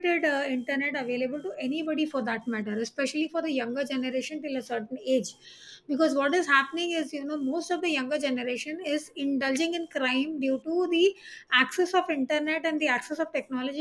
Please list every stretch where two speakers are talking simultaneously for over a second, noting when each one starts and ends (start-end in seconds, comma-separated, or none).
none